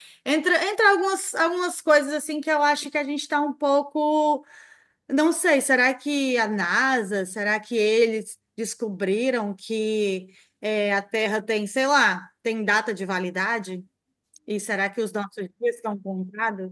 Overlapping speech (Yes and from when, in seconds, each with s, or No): No